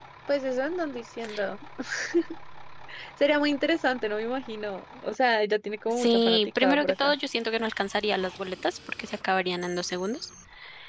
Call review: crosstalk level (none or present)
present